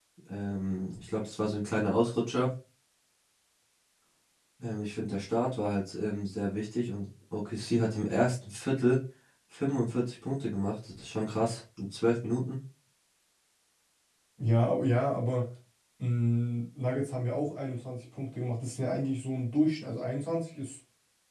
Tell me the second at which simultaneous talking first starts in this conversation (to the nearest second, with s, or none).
none